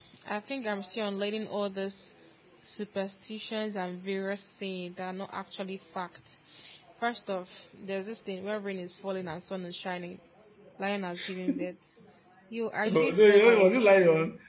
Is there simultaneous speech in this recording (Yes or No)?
Yes